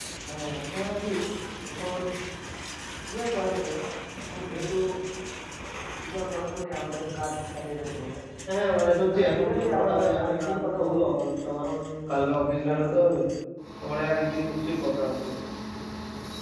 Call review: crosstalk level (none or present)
present